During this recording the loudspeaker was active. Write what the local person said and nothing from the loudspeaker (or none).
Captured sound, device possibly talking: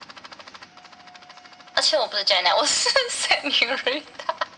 none